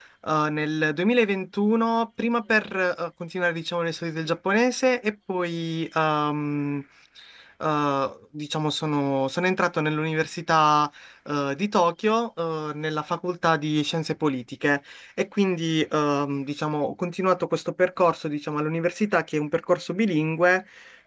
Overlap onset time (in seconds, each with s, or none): none